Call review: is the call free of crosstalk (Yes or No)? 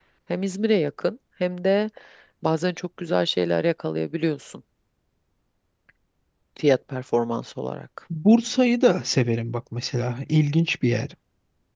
Yes